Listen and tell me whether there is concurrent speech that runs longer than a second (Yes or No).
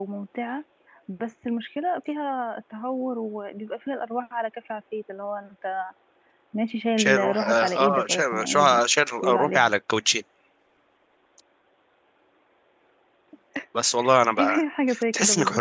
Yes